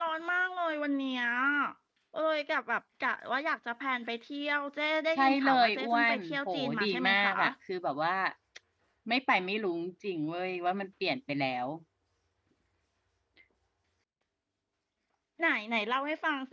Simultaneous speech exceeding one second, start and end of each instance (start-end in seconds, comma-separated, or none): 5.2-7.3